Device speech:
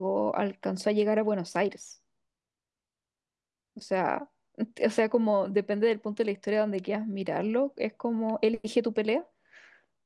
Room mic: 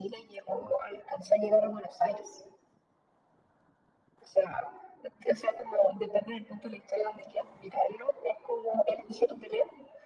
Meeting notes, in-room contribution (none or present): none